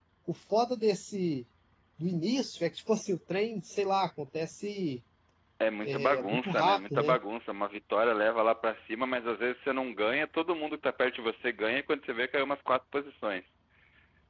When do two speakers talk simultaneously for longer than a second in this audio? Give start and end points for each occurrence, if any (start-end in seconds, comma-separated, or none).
5.9-7.2